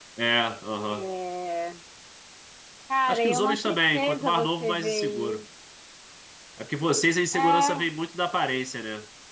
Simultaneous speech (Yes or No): Yes